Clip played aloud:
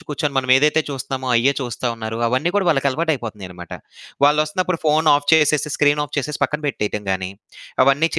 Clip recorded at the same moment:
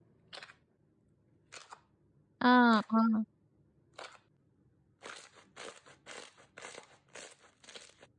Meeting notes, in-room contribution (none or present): present